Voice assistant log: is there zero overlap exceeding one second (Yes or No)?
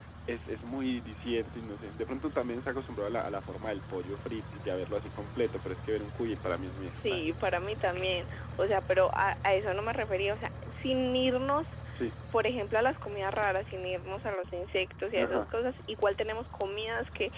Yes